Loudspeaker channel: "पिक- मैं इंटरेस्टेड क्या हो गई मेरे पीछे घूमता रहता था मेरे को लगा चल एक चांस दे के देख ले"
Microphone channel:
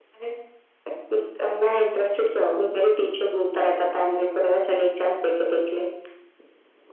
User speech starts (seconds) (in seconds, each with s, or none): none